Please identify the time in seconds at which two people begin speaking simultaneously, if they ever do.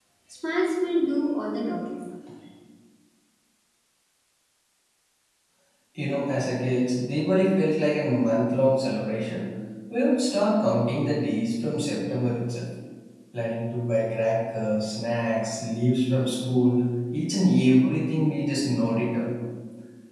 none

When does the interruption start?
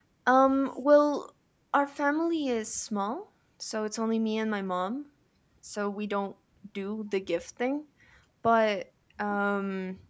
none

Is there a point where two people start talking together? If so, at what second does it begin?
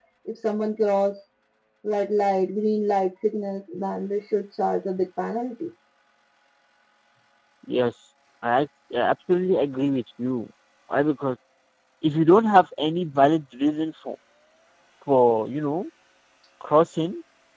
none

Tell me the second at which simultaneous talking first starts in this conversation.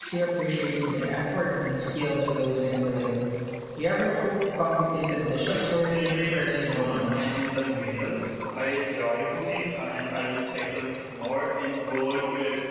5.5 s

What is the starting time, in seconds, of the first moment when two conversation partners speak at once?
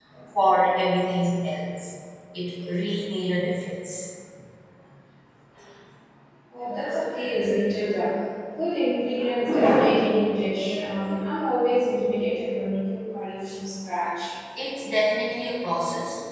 none

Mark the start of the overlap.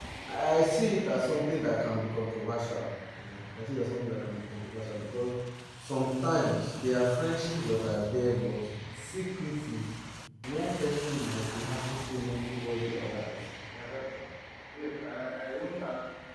none

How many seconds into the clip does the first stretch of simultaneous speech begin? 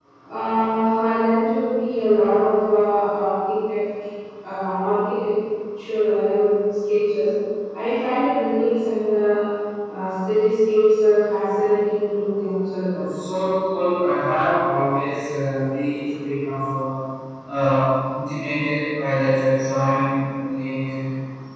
none

